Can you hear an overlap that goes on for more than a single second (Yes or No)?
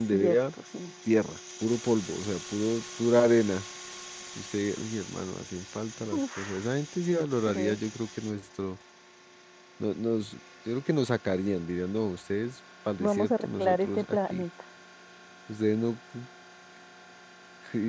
Yes